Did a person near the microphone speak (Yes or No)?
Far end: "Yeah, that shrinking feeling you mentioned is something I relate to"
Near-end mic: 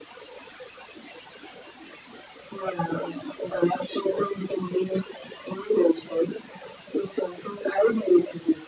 No